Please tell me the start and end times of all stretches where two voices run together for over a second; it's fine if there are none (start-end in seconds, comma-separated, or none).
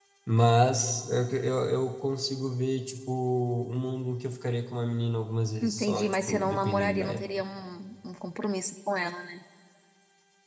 5.6-7.2